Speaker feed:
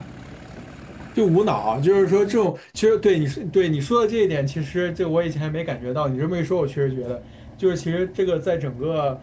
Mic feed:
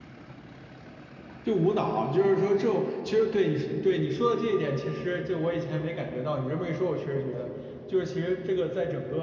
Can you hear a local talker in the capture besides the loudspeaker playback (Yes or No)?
No